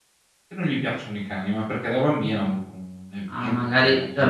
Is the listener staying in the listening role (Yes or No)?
No